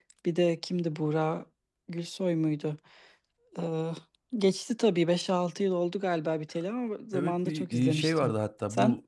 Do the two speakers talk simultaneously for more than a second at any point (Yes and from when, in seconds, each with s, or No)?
Yes, from 7.1 s